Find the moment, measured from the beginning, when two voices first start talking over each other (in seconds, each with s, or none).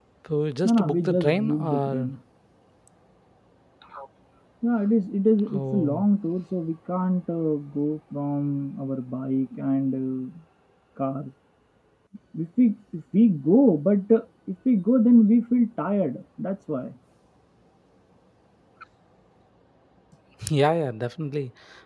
0.7 s